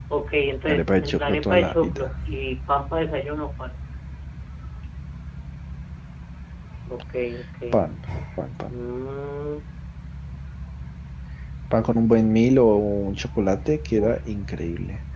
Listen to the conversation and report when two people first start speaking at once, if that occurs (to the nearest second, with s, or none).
1 s